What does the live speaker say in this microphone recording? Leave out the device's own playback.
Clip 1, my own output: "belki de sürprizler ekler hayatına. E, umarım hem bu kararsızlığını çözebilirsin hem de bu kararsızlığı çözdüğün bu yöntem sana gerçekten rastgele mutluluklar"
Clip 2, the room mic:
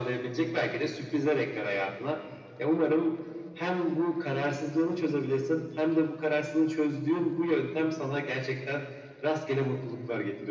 none

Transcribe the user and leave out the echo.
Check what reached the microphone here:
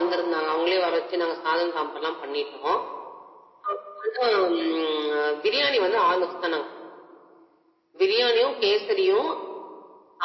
none

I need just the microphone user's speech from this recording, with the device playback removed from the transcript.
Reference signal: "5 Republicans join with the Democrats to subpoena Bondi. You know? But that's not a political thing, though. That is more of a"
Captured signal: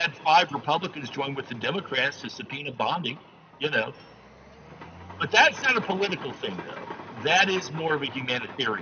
none

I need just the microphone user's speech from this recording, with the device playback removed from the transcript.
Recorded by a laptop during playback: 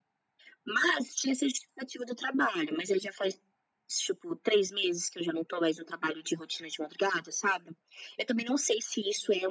none

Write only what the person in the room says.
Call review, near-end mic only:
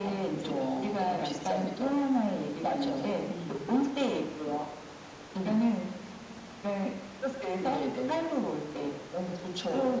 none

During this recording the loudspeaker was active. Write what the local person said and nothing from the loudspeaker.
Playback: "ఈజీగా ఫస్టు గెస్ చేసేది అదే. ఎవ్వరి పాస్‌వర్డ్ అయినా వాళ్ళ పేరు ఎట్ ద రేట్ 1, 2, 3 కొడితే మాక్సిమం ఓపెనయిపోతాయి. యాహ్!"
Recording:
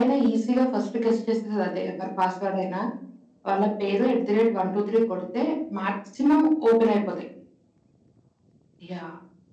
none

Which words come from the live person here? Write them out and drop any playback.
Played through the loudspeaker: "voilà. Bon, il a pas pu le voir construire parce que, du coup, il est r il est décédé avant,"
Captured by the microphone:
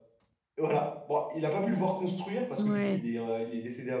Ouais.

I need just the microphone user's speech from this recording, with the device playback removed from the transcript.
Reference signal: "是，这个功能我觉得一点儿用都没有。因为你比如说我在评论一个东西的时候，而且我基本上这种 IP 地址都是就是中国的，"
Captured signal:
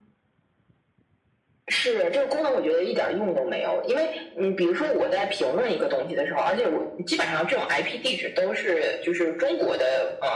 none

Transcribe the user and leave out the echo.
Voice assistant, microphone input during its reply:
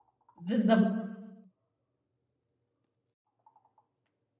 بالضبط

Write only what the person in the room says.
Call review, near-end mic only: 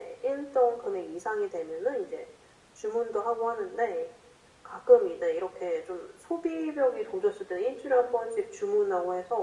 none

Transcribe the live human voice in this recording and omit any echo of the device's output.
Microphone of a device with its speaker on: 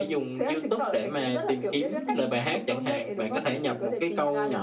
ừm.

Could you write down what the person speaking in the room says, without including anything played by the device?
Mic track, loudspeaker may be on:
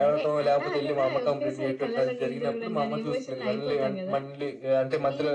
none

